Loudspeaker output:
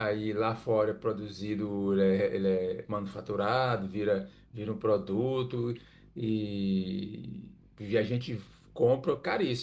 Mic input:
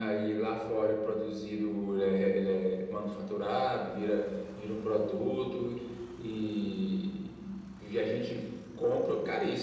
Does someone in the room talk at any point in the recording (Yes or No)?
No